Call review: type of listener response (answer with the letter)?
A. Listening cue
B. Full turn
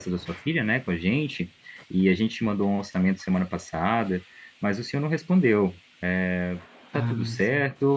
A